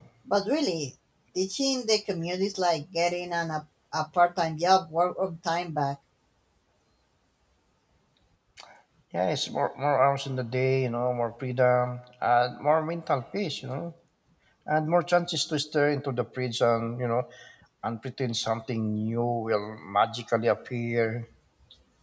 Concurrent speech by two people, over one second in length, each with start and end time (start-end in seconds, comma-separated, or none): none